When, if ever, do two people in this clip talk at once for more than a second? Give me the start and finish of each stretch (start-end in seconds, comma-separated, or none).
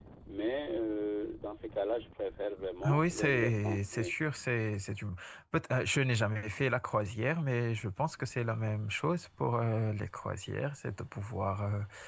2.9-4.1